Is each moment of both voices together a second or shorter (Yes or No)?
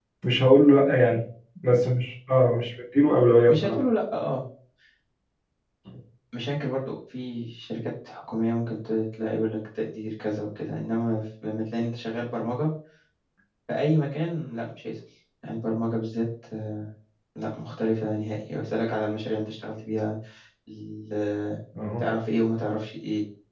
Yes